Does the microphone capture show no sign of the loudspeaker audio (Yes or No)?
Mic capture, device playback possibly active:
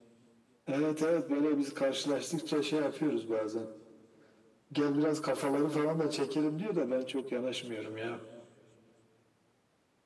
No